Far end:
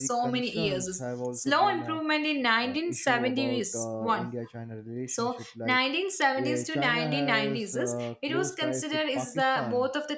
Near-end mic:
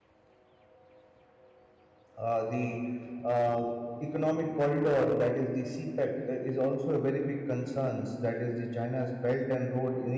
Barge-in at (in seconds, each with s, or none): 2.2 s